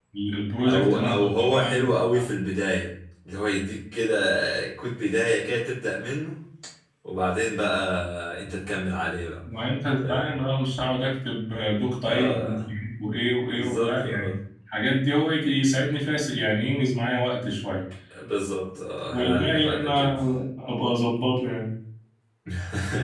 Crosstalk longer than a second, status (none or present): present